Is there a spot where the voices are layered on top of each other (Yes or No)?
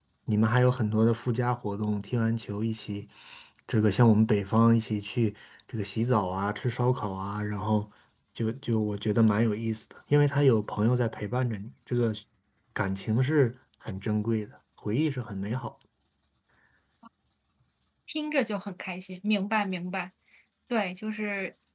No